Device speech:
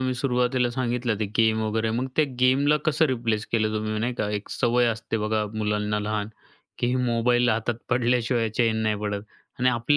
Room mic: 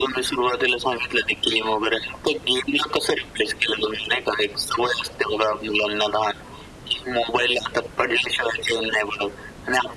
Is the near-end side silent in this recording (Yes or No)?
Yes